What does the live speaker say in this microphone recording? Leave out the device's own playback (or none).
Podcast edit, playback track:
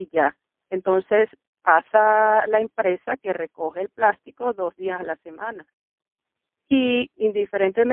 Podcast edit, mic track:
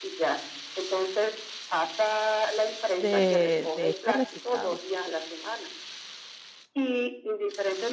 de, de este reciclado.